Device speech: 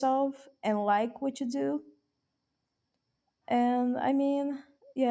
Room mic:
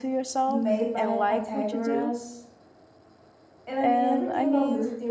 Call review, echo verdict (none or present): present